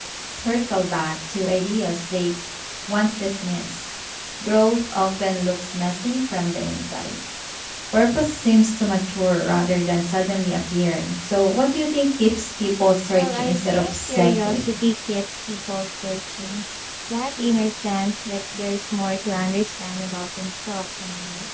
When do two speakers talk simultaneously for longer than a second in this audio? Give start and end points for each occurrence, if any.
13.1-14.7

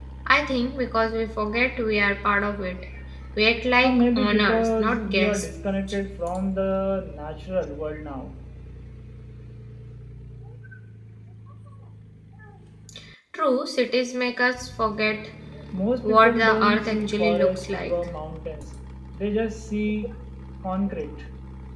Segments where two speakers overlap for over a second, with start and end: 3.8-5.5, 16.1-17.9

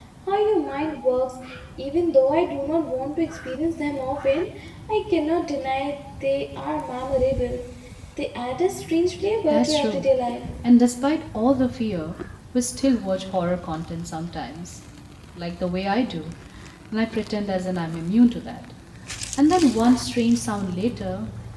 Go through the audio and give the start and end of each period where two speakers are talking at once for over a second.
none

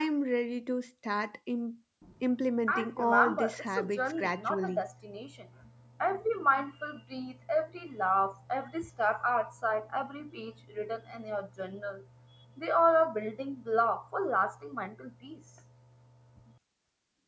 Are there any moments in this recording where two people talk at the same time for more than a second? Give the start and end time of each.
2.7-4.8

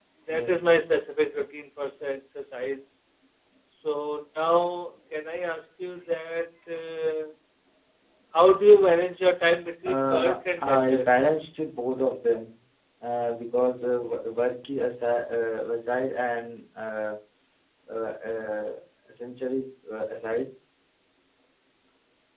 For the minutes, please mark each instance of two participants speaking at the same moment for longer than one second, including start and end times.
9.8-11.1

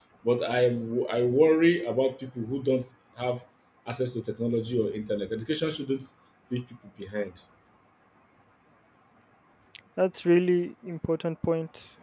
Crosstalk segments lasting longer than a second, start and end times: none

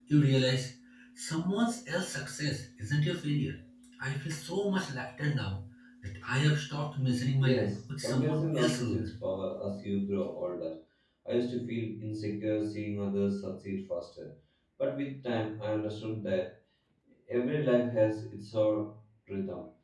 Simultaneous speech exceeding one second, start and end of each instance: 7.4-9.1

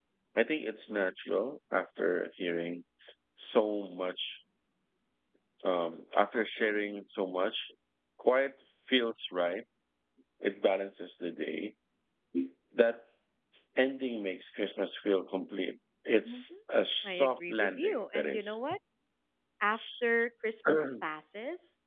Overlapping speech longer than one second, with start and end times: 17.0-18.6

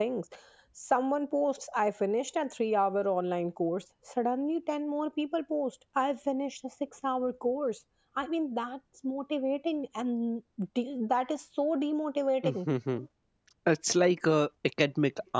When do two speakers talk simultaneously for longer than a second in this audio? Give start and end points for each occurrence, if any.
none

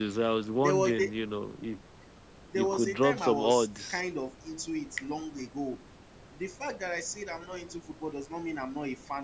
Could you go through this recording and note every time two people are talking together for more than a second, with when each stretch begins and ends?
2.5-4.0

